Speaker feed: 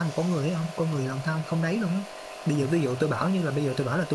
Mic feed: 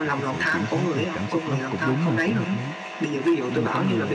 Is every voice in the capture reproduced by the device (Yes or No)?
No